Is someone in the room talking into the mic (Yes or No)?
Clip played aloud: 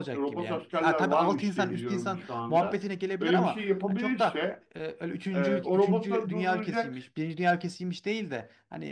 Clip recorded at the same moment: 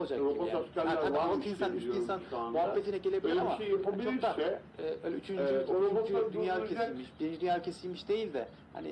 No